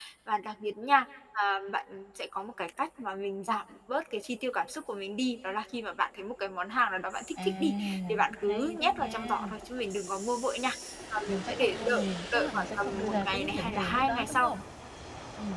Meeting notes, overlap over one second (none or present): present